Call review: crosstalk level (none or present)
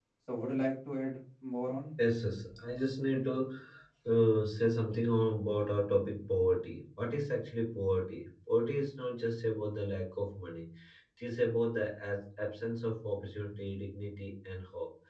none